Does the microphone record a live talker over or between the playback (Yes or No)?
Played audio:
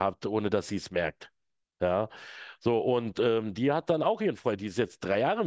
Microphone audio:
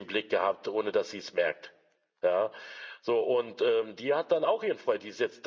No